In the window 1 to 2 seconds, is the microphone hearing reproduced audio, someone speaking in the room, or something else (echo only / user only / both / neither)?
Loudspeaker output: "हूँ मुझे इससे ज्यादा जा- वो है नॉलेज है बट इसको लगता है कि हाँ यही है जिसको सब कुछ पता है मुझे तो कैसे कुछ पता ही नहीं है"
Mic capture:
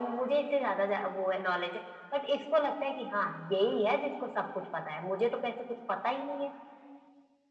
echo only